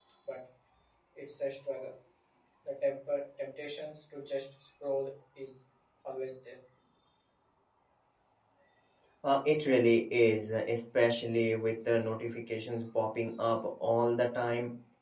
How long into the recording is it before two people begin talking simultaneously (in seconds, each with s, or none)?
none